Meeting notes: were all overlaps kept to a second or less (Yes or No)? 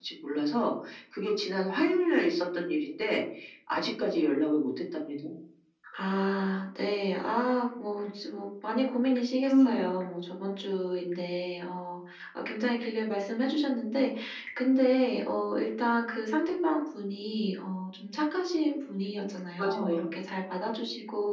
Yes